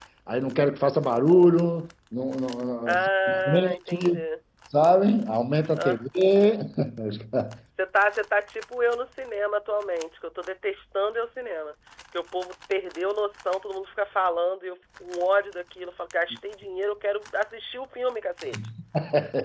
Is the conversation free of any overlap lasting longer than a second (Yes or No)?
No